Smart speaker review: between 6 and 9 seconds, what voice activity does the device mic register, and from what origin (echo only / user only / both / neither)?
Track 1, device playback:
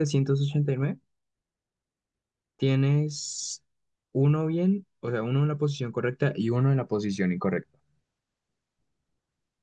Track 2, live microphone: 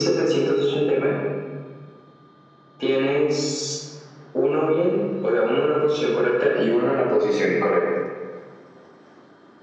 echo only